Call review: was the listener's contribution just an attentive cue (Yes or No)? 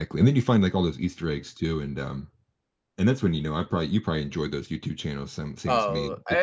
No